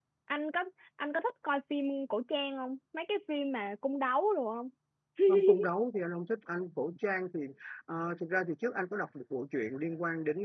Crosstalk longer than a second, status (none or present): none